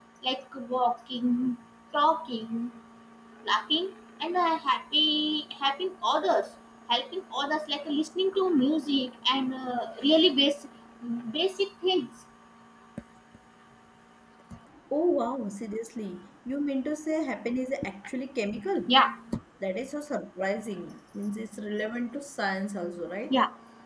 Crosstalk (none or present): none